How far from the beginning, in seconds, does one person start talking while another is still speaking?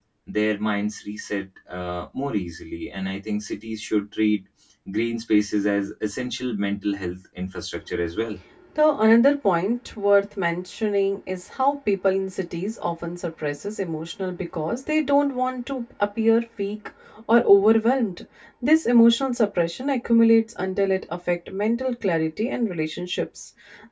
none

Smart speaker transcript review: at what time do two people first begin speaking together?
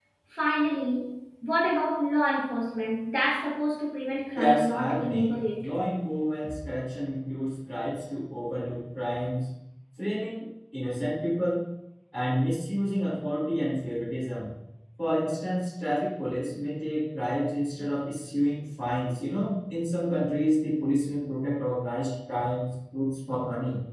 4.3 s

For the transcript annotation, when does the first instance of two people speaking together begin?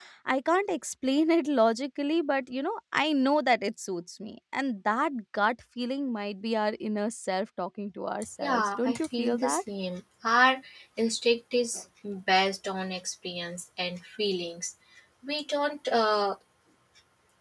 8.4 s

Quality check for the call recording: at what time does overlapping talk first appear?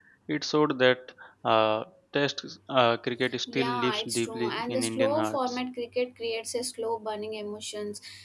3.5 s

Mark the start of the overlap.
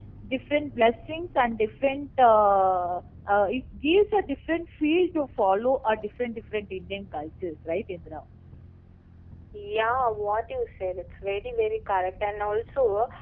none

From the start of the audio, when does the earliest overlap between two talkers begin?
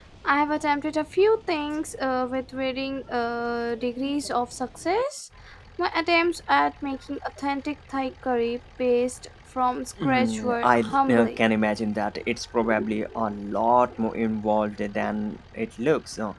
10.0 s

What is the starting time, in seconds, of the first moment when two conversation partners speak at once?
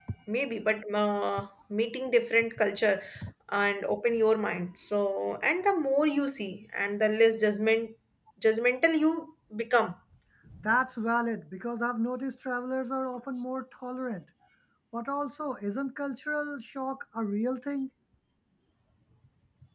none

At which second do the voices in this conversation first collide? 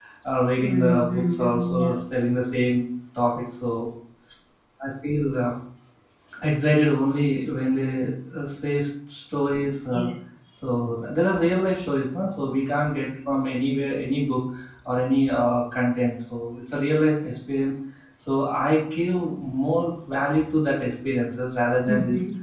0.7 s

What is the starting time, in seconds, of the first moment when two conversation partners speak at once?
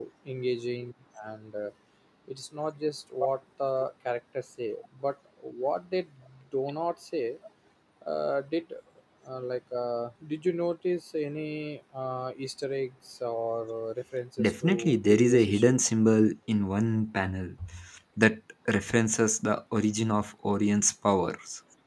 14.4 s

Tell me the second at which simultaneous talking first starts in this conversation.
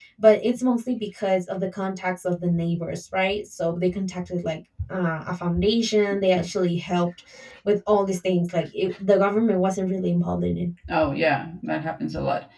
none

